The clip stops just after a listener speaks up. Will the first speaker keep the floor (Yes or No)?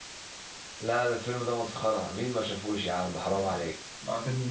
No